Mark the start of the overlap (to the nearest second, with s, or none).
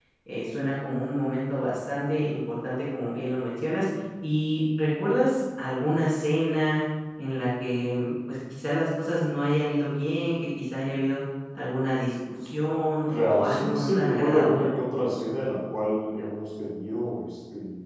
13 s